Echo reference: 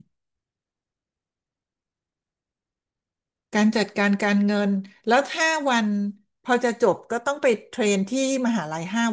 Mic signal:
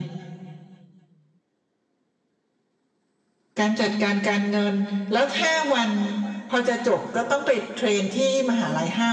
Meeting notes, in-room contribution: none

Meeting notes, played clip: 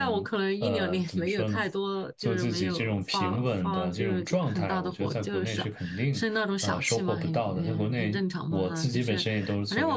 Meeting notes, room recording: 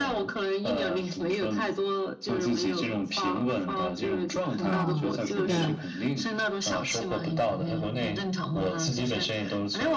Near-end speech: present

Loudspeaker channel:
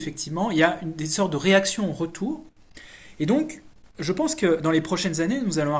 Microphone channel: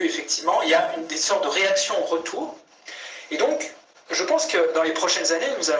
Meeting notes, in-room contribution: none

